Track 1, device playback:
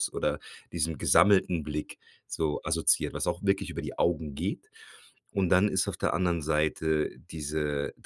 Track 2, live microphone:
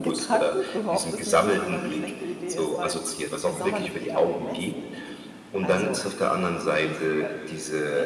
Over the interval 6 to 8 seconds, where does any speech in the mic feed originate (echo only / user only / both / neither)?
both